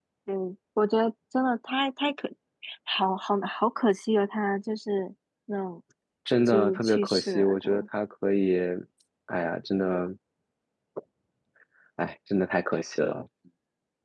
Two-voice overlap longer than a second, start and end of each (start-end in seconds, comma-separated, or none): 6.5-7.8